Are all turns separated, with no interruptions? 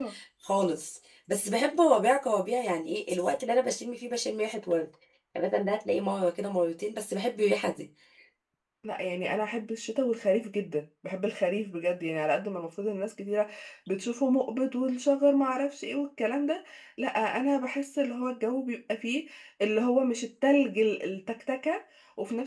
Yes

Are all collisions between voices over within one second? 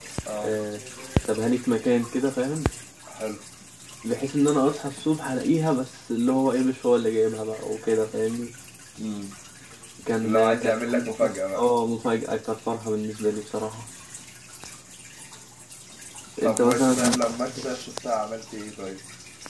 No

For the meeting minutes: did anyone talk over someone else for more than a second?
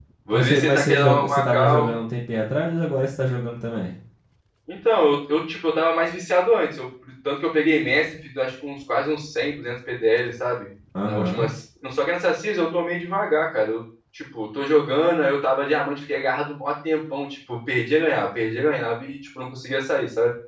Yes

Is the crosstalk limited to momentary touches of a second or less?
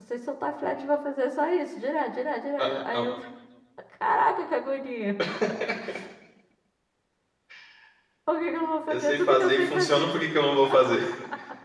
No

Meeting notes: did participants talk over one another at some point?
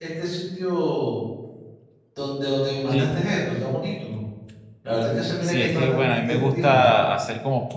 Yes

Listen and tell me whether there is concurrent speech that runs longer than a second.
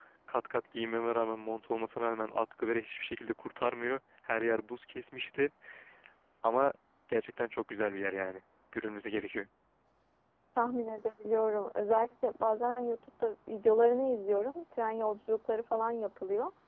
No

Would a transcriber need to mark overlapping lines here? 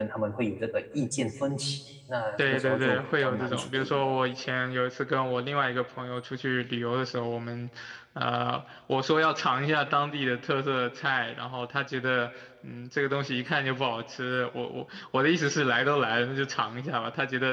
Yes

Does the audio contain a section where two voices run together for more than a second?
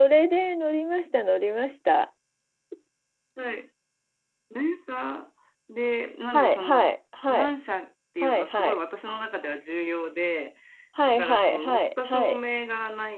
Yes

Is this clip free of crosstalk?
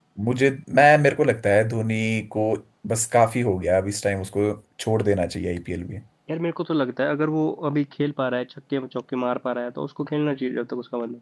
Yes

